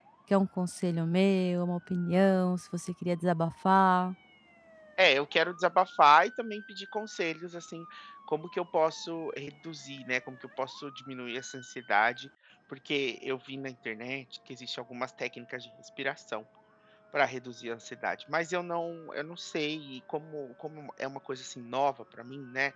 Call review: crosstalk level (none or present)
none